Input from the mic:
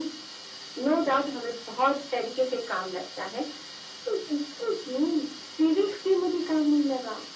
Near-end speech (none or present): none